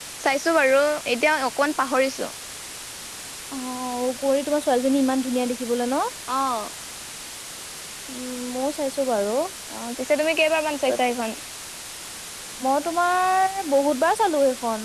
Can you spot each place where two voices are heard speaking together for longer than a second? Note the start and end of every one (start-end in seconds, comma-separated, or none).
none